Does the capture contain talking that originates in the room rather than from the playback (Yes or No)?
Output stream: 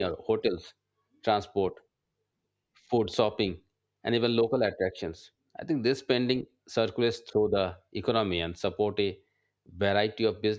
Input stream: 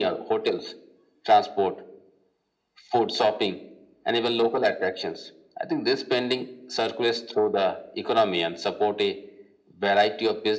No